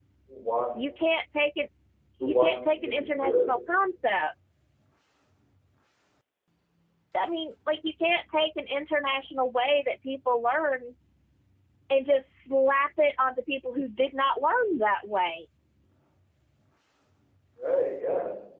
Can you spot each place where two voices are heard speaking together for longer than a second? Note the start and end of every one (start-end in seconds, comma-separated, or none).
2.2-3.5